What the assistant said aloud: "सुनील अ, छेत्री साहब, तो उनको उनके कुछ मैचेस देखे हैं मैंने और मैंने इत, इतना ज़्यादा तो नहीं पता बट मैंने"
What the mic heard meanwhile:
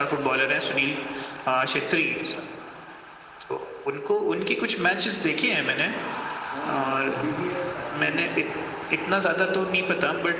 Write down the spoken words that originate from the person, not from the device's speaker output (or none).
हाँ हॉबी भी है और पैशन भी